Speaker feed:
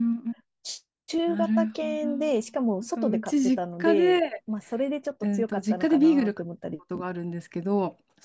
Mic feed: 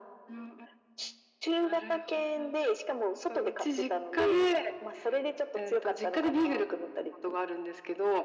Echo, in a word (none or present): present